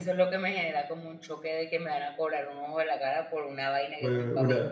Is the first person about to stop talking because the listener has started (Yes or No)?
Yes